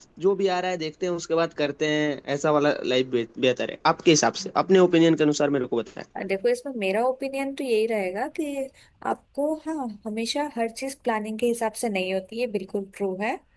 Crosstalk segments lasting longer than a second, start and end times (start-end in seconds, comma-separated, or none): none